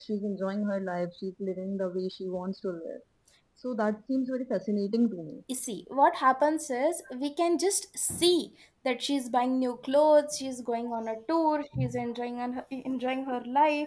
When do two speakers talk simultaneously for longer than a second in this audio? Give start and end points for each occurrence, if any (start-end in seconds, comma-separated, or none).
none